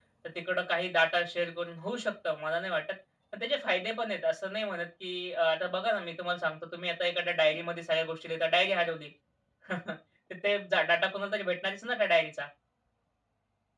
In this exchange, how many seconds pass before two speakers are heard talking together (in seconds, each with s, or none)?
none